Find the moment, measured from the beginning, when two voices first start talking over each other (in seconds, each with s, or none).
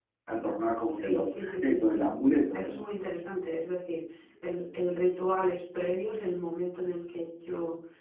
0.9 s